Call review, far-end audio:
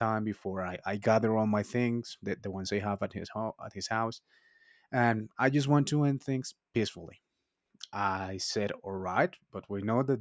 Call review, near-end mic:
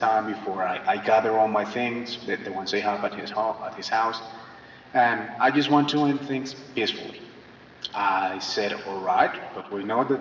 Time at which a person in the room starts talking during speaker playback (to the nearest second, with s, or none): none